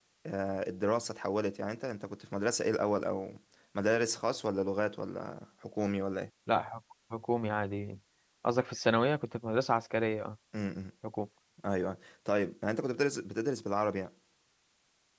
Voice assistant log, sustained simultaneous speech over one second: none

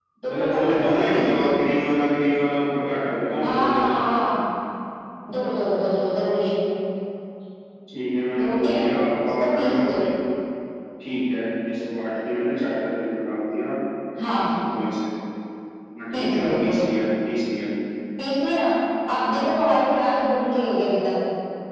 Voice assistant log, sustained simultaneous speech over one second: present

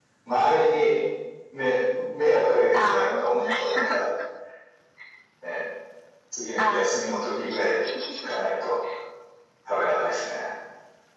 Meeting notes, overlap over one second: present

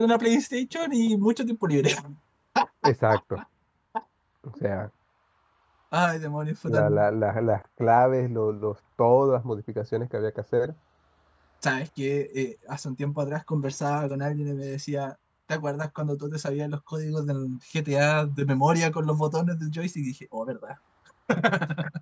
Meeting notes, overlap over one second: none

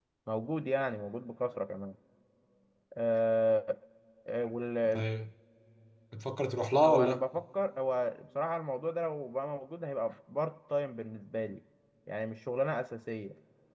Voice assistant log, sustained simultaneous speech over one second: none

